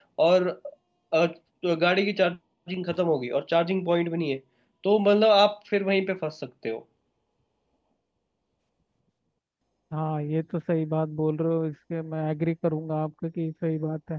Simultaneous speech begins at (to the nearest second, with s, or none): none